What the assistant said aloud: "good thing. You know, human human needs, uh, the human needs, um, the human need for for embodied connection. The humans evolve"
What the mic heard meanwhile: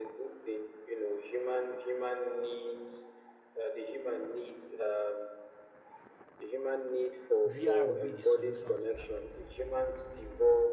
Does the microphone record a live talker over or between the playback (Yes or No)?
Yes